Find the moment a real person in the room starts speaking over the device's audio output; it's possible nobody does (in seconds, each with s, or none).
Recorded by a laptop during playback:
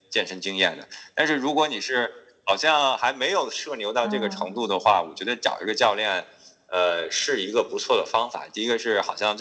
4.0 s